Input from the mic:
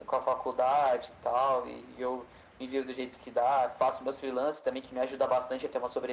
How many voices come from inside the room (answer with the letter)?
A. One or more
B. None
B